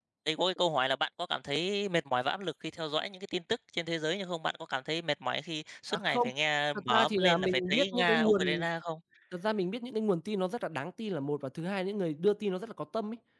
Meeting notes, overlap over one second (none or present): present